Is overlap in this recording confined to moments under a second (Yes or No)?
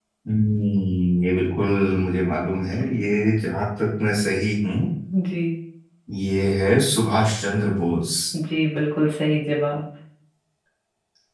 Yes